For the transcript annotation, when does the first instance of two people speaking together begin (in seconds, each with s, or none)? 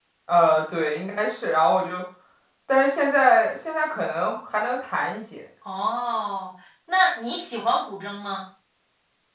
none